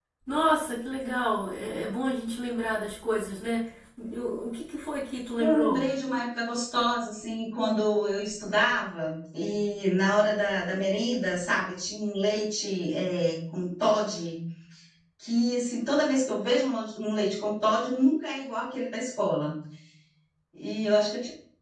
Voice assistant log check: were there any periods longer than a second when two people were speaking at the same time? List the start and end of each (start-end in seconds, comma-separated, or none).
none